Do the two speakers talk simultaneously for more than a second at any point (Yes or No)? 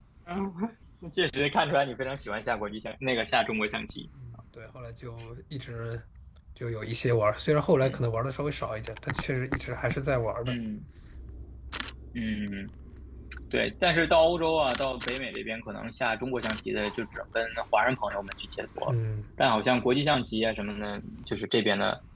No